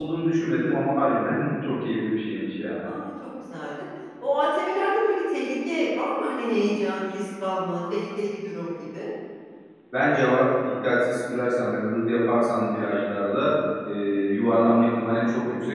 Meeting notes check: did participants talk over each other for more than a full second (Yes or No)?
No